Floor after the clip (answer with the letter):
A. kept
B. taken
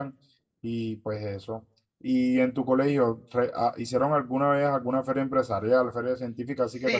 B